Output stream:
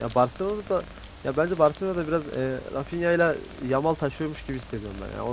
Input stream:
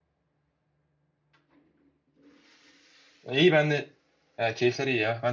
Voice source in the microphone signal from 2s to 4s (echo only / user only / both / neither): user only